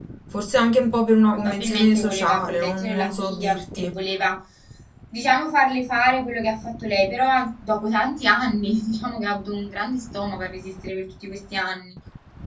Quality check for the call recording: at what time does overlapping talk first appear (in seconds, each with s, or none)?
1.3 s